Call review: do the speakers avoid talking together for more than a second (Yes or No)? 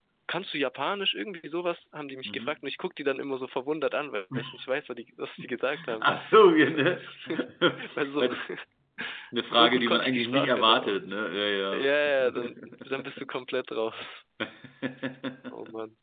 No